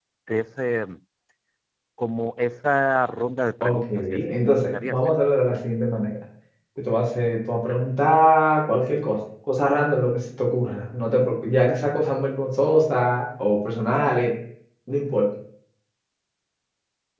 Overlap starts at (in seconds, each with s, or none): 3.6 s